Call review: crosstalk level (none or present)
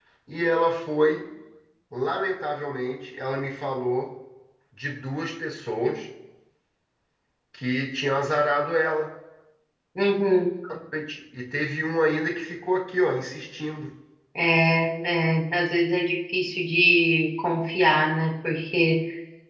none